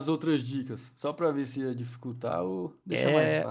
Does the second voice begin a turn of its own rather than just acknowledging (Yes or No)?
Yes